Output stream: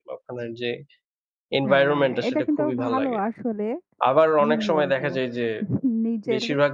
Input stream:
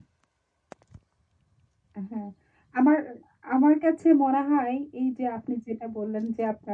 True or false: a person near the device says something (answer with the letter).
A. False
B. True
B